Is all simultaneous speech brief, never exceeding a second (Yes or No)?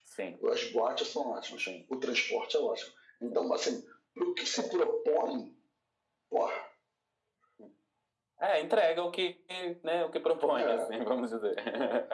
Yes